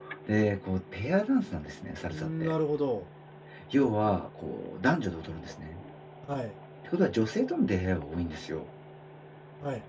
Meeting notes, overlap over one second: none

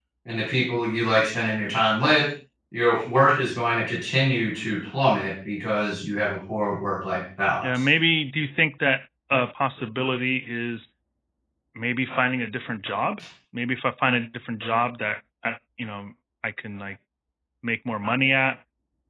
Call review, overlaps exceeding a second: none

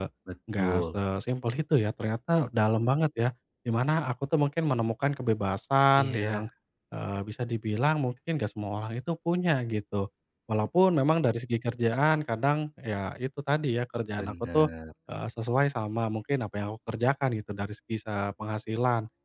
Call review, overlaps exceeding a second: none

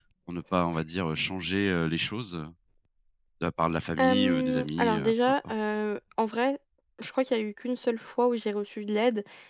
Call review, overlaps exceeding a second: present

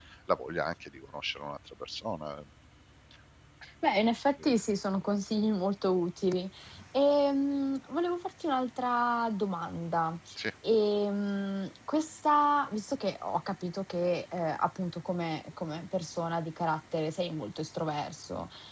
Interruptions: none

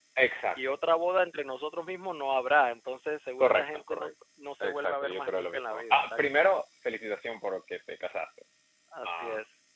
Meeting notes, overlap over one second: present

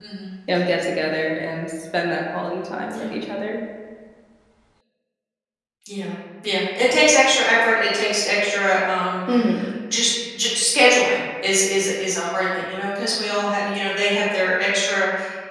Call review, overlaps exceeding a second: none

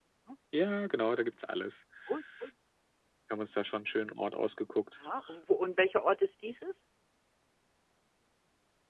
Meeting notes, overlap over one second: none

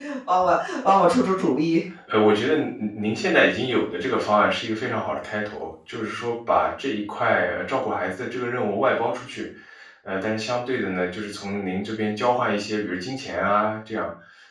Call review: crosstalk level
none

